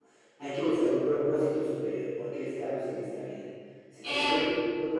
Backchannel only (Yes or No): Yes